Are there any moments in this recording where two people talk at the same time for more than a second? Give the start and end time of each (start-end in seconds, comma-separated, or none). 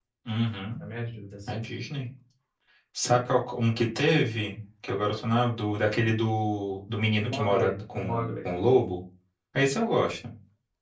7.2-8.5